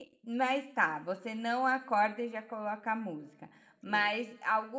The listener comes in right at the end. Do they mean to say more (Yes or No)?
No